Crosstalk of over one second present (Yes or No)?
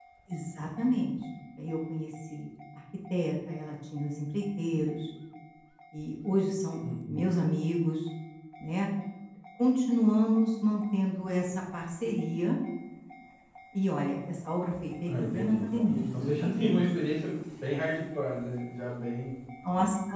Yes